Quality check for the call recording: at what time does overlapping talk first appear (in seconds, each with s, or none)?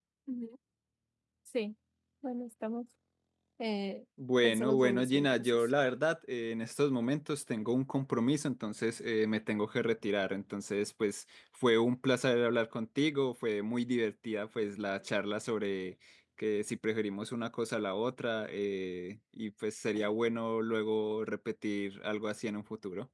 4.4 s